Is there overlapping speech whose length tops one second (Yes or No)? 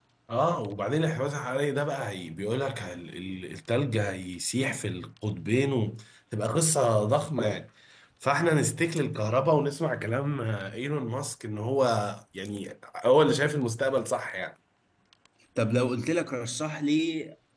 No